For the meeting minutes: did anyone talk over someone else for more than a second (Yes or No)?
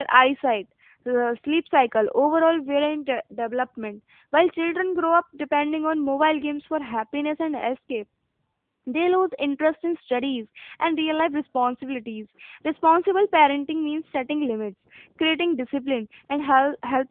No